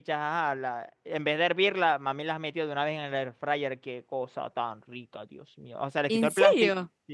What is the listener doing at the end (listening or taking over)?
listening